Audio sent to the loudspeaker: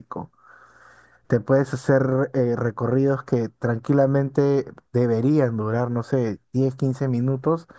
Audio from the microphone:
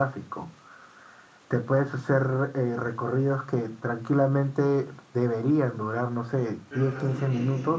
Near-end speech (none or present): present